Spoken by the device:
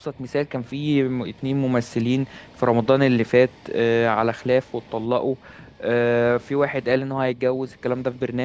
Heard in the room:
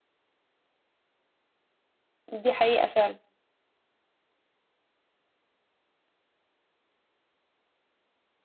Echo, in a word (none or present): none